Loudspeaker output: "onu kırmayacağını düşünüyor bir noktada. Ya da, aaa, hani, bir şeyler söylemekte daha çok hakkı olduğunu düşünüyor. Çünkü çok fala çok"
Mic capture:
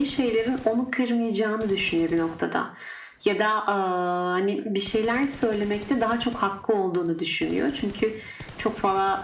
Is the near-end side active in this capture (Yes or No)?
No